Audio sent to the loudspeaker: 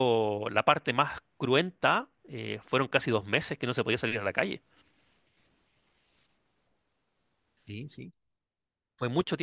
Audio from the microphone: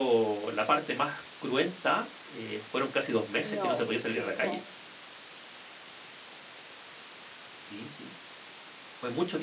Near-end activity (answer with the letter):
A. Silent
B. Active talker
B